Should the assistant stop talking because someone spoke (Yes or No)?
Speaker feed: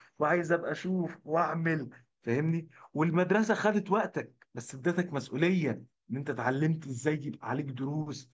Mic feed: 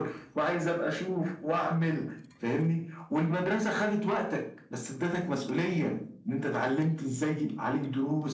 No